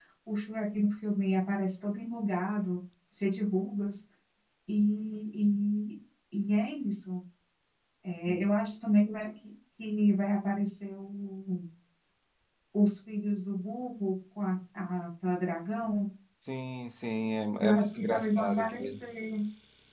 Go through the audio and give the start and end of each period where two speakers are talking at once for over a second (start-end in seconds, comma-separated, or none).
17.6-18.8